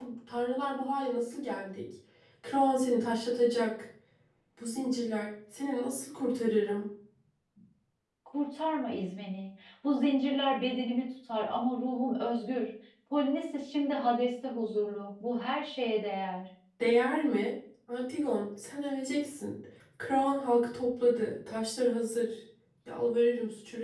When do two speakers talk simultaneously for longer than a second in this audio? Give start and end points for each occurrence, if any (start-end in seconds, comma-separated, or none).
none